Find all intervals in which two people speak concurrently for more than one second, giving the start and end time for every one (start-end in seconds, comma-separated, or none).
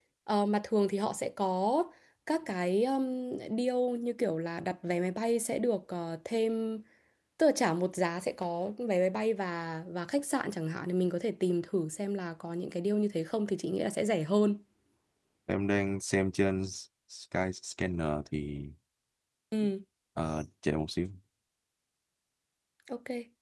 none